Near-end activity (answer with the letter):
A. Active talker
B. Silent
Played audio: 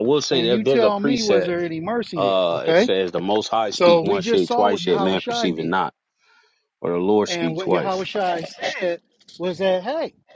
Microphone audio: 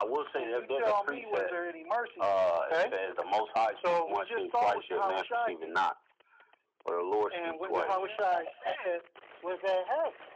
A